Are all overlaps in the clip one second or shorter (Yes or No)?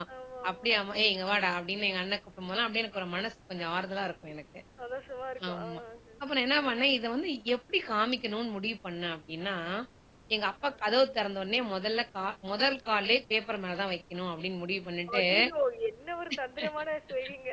Yes